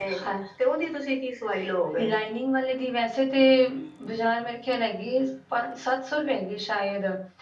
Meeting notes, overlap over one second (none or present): none